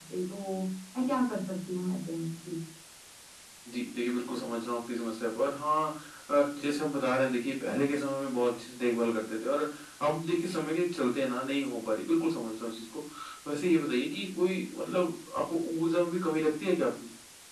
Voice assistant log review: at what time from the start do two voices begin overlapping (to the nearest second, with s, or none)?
none